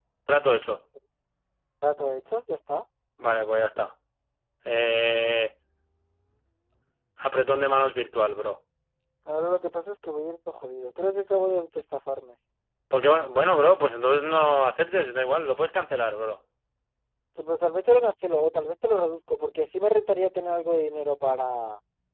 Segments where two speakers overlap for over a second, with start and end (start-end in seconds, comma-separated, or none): none